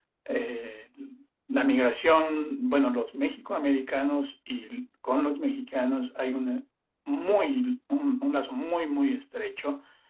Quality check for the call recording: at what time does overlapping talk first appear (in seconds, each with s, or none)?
none